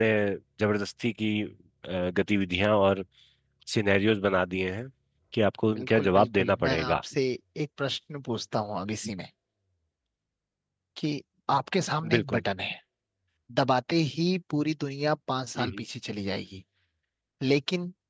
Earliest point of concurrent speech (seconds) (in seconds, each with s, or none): 5.8 s